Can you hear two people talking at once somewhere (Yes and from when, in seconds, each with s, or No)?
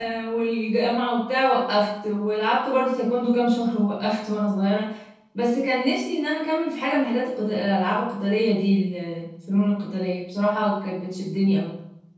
No